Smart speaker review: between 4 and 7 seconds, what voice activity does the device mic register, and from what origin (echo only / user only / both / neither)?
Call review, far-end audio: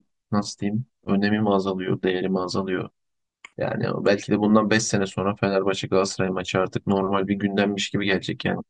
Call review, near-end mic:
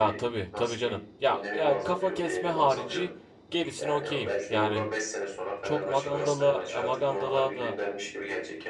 both